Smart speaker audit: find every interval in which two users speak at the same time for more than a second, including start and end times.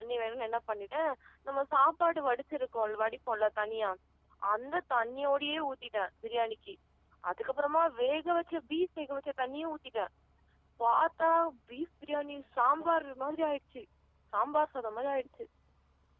12.1-13.3

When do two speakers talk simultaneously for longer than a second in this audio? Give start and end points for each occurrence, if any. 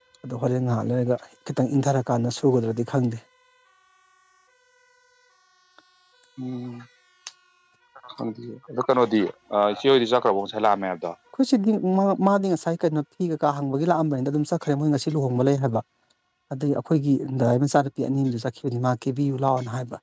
none

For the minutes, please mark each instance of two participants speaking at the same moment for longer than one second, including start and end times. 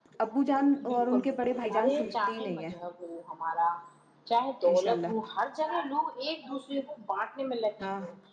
0.9-2.6

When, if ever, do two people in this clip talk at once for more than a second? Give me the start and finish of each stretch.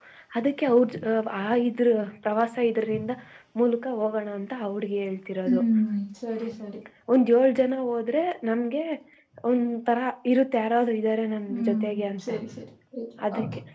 none

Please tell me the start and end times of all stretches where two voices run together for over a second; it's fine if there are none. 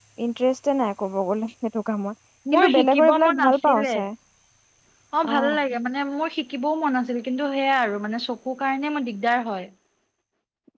2.5-3.9

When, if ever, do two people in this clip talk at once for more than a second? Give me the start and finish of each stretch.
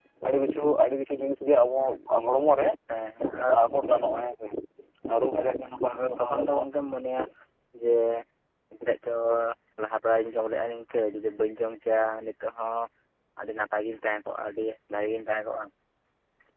5.4-6.7

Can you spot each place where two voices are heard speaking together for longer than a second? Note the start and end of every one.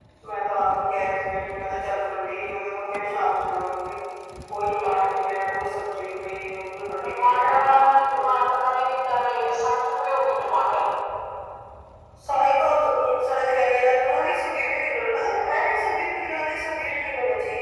none

